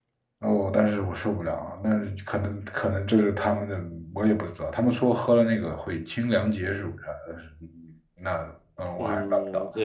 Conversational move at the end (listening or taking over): taking over